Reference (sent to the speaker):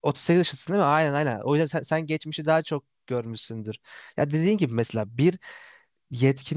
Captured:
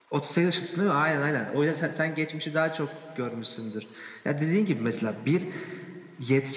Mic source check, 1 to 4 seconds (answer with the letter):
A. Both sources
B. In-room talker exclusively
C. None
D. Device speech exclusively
D